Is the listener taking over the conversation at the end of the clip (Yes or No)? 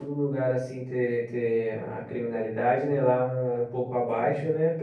No